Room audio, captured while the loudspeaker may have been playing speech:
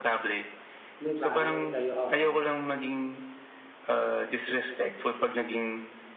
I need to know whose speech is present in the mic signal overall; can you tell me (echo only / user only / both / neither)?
both